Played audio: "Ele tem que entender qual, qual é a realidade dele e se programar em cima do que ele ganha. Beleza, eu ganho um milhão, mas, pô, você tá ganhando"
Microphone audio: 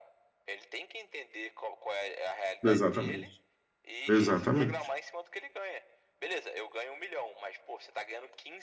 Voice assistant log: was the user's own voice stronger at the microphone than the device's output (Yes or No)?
Yes